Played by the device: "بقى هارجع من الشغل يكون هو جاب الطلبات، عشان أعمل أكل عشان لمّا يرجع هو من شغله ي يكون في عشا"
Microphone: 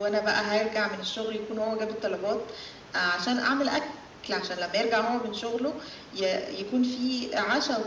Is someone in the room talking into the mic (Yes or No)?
No